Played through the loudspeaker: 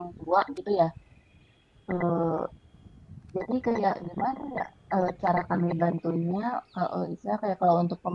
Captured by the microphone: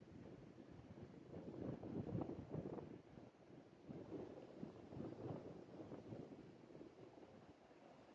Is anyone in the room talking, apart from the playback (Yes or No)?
No